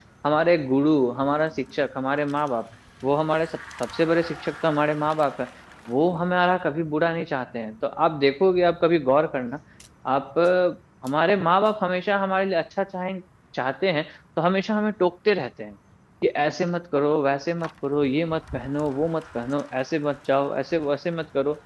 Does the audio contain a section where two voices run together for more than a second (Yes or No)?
No